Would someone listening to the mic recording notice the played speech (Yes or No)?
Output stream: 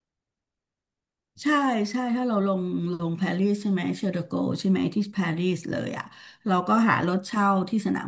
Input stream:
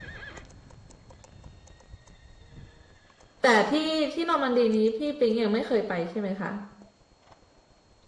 No